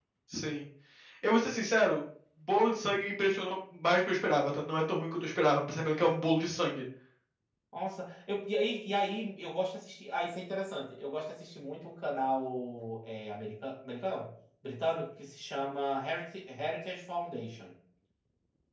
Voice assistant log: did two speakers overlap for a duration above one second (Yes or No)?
No